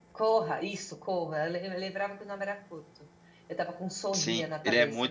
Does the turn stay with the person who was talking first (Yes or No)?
No